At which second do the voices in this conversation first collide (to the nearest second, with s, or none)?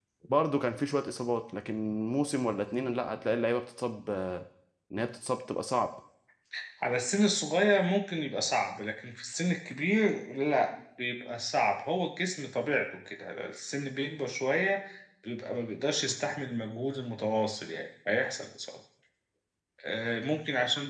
none